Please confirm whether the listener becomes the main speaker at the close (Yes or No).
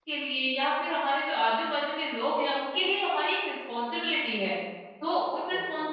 No